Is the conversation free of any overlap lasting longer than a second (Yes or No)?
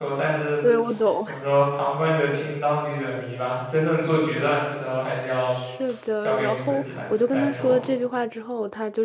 No